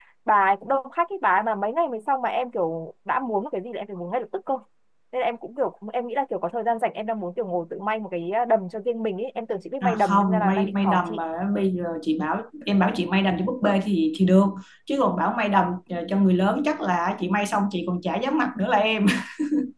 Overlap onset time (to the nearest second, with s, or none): 10 s